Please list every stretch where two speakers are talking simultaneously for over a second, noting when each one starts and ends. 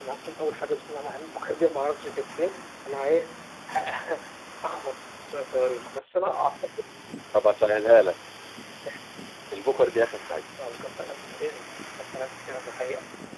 none

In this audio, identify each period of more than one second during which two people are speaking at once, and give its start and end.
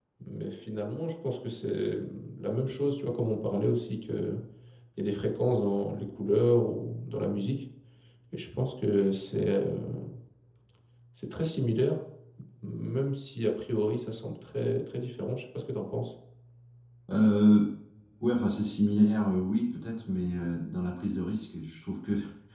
none

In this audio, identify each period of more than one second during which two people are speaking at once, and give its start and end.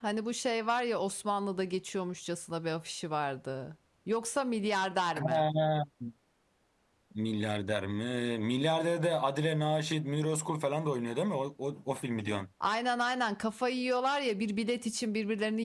none

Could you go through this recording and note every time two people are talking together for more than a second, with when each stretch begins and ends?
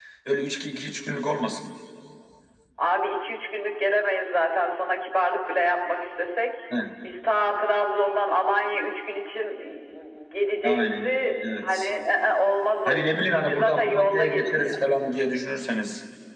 12.9-14.8

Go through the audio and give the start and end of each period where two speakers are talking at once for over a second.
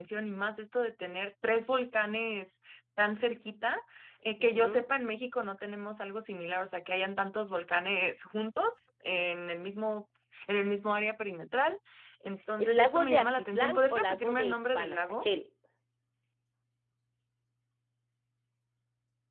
12.6-15.3

